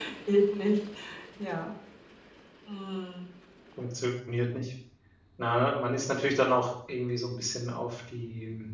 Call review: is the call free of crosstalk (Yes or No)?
Yes